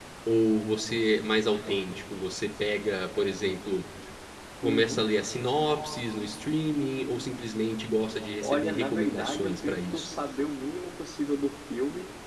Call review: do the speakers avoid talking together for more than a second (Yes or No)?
No